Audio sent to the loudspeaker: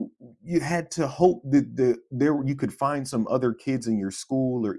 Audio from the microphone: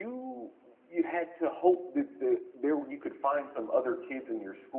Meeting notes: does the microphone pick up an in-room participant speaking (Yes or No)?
No